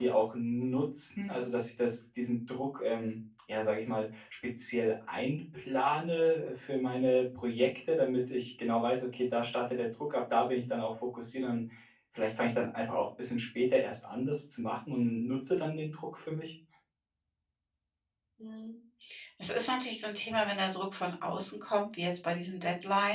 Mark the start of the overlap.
none

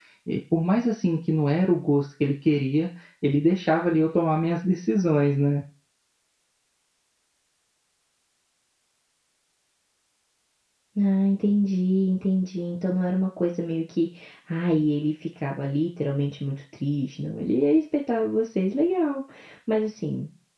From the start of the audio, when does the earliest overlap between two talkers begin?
none

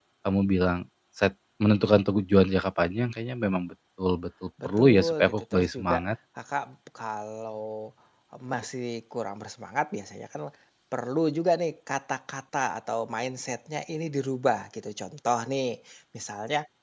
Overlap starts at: 5 s

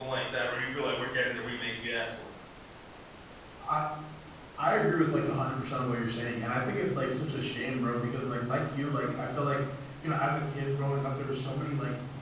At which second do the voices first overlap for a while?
none

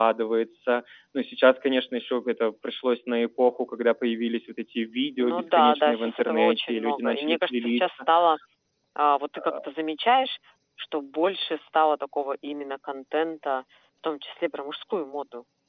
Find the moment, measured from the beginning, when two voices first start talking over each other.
5 s

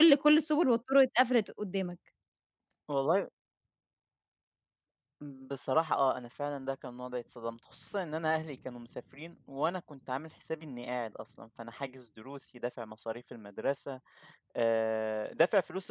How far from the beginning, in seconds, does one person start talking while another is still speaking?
none

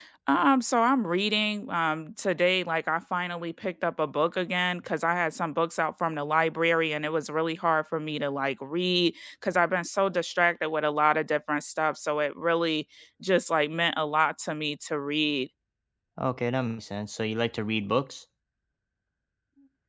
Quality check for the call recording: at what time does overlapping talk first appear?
none

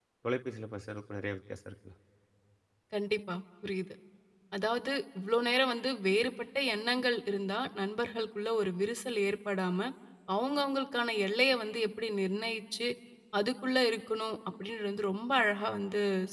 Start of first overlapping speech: none

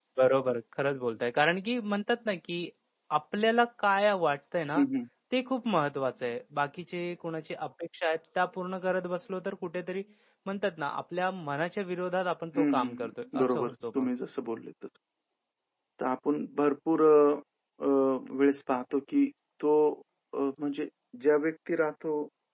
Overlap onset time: 13 s

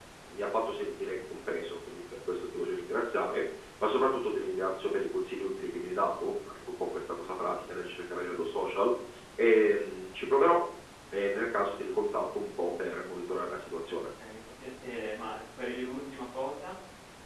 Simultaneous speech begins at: none

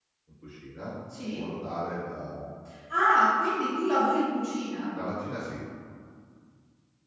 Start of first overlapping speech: none

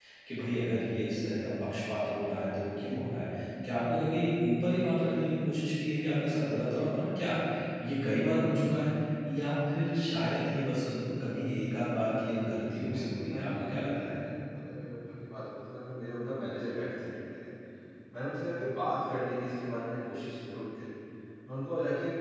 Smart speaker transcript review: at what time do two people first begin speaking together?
13 s

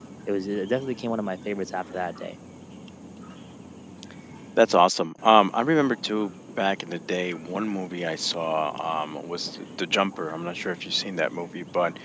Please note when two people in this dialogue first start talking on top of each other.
none

